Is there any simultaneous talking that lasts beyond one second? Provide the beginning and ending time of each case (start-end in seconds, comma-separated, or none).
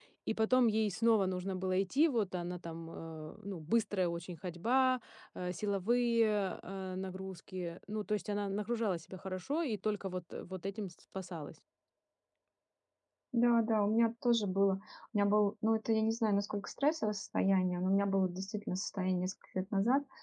none